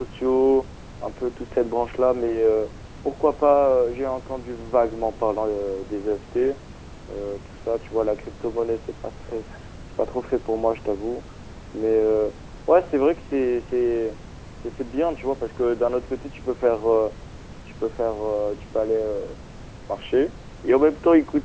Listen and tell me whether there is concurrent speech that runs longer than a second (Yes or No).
No